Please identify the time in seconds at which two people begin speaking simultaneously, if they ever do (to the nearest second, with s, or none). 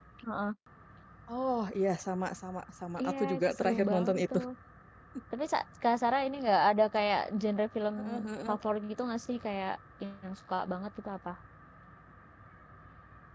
3 s